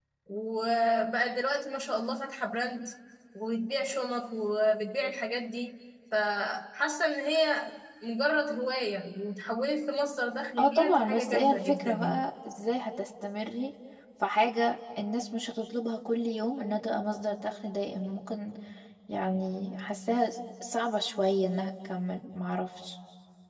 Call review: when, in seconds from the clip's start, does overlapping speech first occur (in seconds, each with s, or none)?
10.6 s